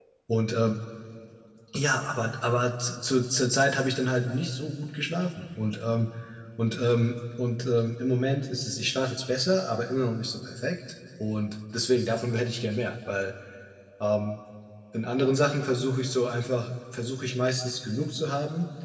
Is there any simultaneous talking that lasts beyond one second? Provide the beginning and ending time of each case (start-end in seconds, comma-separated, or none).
none